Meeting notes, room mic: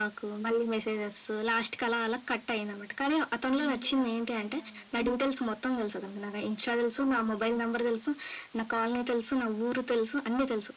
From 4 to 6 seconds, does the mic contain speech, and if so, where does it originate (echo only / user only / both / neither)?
both